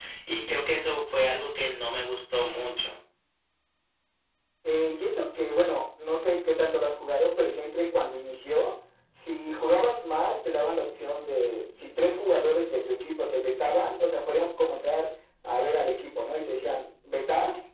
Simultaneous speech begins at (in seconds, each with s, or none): none